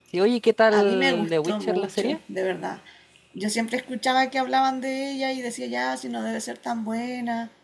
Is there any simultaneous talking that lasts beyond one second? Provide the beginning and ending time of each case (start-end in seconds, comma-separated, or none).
0.7-2.2